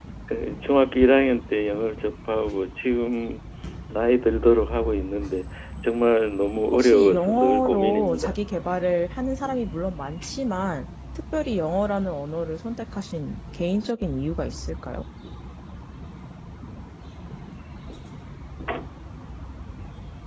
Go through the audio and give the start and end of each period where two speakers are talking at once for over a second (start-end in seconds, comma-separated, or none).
6.7-8.4